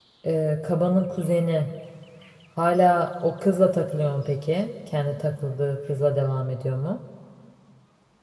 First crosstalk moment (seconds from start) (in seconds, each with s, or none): none